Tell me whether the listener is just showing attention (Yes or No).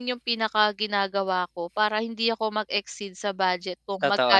Yes